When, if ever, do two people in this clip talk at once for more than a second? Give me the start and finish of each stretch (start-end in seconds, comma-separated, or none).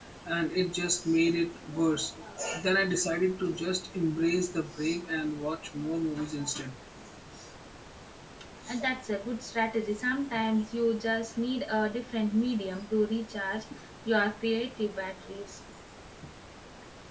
none